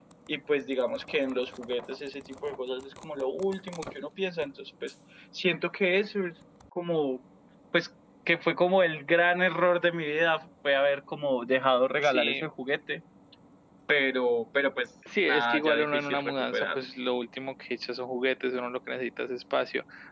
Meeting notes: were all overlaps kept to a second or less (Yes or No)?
No